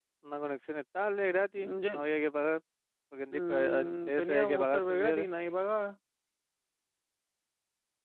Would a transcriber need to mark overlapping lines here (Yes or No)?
Yes